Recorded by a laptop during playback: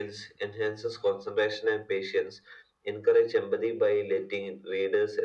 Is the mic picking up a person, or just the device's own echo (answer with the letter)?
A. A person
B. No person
B